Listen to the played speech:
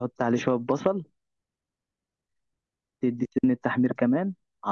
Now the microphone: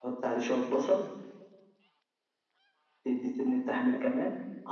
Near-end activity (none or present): none